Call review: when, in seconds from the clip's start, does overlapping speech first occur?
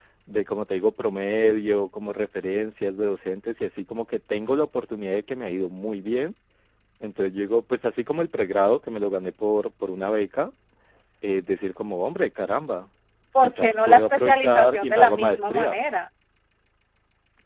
13.4 s

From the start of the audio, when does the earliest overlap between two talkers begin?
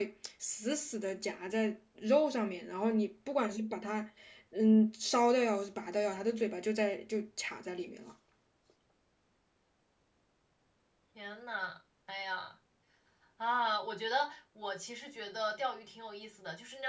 none

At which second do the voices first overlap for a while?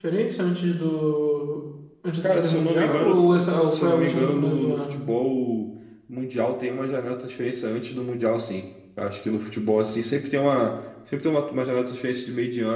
2.2 s

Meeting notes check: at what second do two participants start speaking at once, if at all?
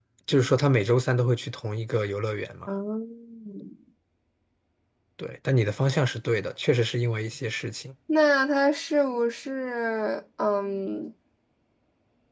none

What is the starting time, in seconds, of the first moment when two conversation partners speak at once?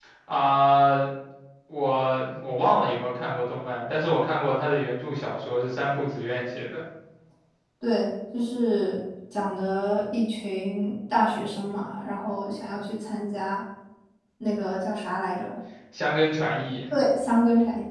none

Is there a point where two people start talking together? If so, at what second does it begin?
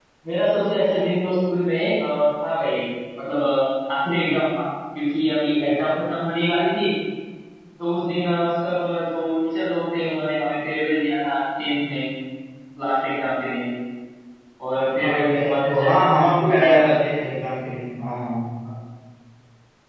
15.0 s

